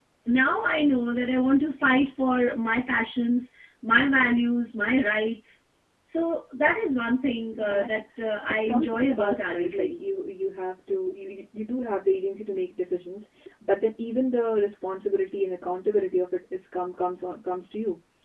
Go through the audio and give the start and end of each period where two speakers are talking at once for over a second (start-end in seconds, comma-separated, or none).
8.5-9.9